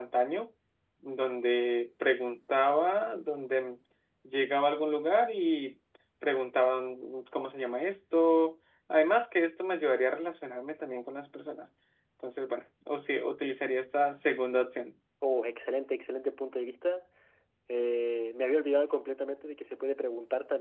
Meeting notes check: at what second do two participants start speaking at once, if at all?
none

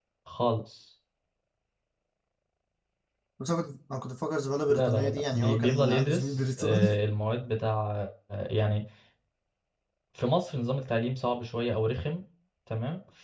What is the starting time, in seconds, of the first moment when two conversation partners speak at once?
4.7 s

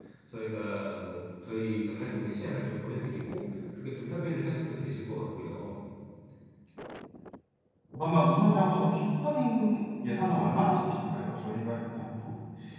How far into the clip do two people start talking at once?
none

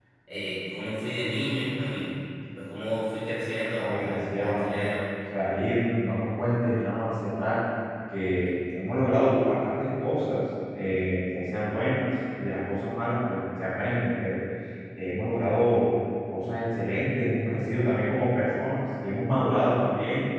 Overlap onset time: 3.8 s

